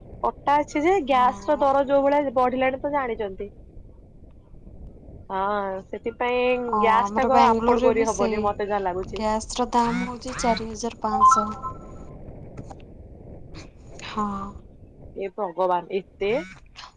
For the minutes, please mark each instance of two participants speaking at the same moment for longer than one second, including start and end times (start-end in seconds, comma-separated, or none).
6.8-8.4